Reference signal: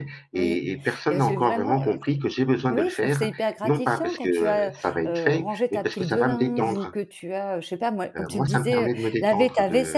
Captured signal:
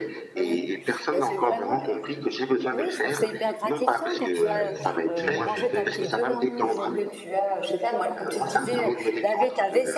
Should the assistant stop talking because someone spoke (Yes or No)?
Yes